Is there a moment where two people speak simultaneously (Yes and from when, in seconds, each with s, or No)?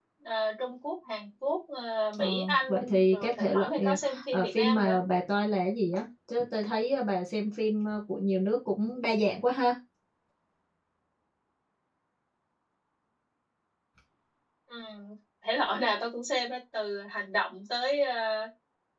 Yes, from 2.1 s